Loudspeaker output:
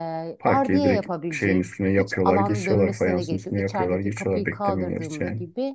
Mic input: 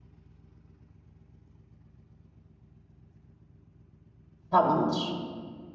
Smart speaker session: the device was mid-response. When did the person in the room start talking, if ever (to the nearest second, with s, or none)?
4 s